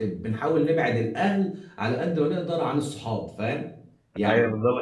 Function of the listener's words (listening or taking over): taking over